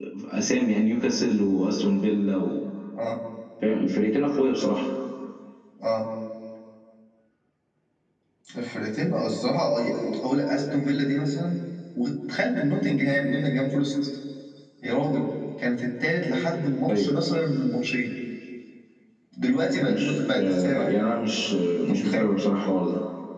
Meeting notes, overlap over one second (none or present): present